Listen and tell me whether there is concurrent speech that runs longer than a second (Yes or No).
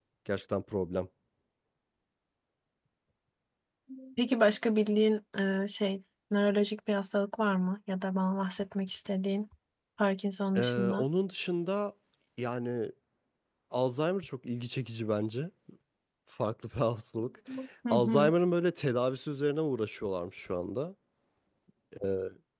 No